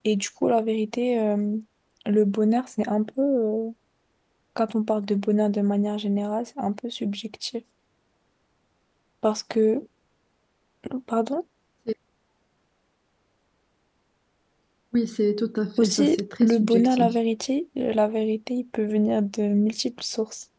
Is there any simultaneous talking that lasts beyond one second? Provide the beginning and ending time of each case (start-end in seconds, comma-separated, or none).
15.8-17.2